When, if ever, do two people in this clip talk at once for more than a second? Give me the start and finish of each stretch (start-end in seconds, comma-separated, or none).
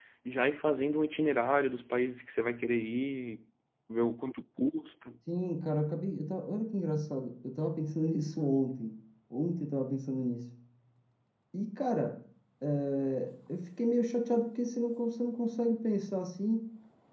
none